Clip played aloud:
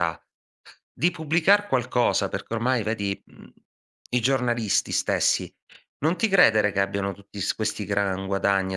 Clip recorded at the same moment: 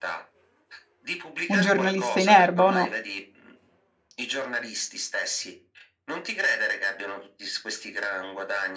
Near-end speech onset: 1.5 s

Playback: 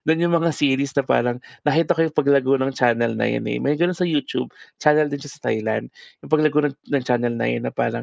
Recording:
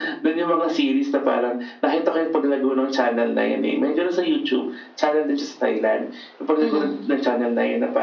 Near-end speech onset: 6.6 s

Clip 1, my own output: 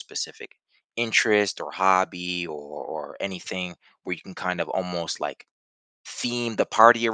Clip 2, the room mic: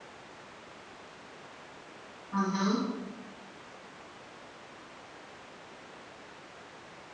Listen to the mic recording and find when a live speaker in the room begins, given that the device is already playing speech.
2.3 s

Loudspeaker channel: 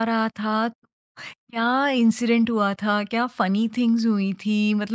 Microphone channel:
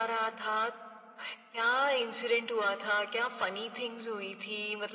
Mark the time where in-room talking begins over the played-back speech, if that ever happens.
none

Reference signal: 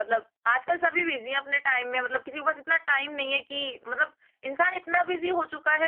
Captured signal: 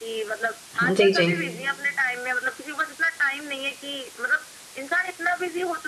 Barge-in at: 0.8 s

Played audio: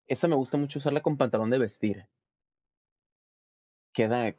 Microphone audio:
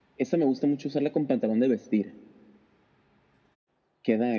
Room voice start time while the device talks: none

